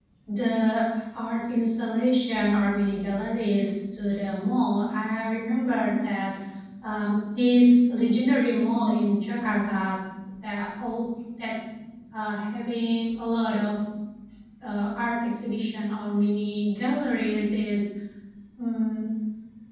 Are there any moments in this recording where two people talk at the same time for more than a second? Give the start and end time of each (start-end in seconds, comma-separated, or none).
none